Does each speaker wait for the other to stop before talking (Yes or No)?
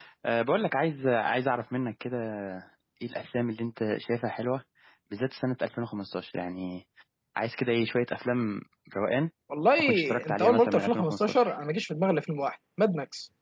No